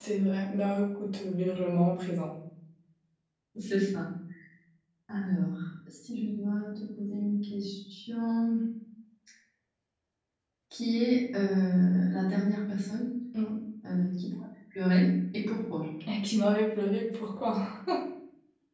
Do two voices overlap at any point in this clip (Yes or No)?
No